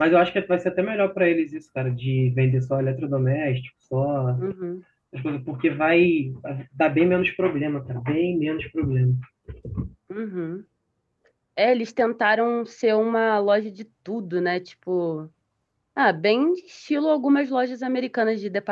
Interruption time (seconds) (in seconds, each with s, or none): none